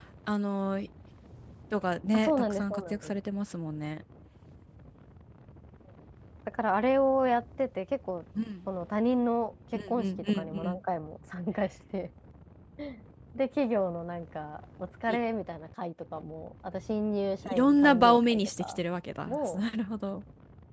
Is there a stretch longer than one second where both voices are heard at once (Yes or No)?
Yes